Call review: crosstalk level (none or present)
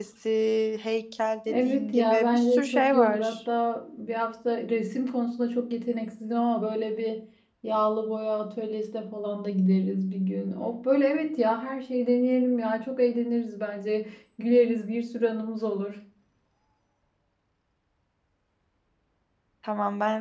present